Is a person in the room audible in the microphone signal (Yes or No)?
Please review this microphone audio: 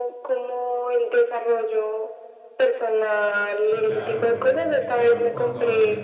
Yes